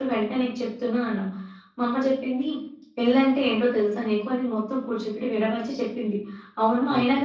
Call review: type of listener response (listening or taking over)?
listening